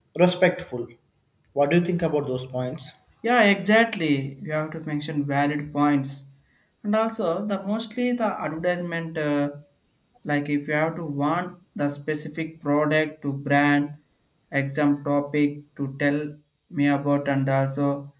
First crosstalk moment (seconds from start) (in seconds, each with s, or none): none